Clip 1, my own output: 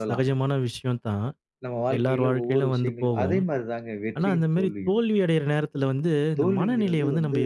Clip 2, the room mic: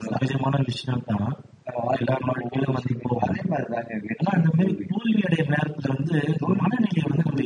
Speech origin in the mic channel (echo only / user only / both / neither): echo only